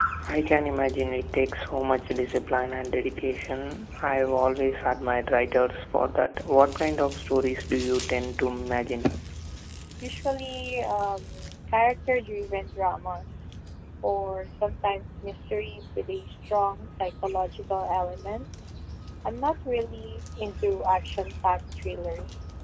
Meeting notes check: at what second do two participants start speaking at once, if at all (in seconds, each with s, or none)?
none